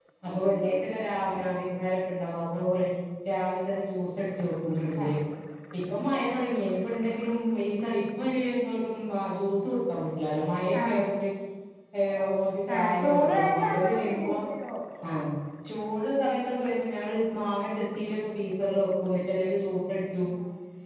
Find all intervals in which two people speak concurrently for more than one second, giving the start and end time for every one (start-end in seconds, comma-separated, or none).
12.7-14.3